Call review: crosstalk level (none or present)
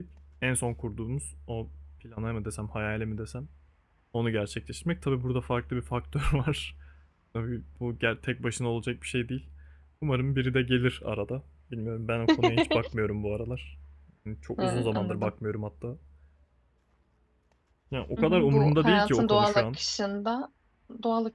present